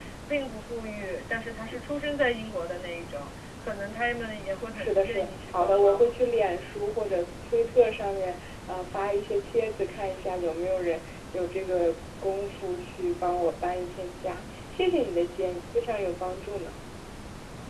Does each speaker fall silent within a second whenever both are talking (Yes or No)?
No